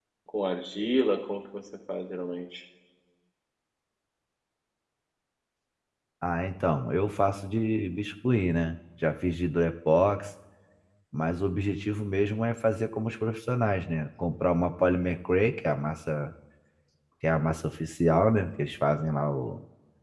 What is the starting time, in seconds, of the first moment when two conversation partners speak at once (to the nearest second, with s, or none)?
none